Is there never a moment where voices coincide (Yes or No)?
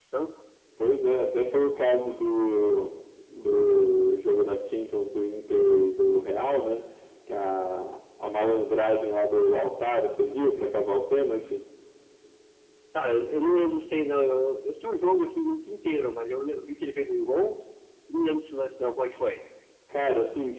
Yes